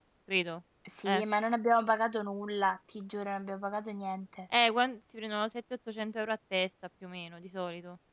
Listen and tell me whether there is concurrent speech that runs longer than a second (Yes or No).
No